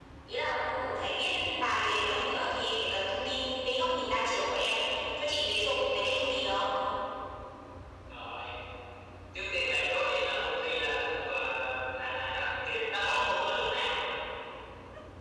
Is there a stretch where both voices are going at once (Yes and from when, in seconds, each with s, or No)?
No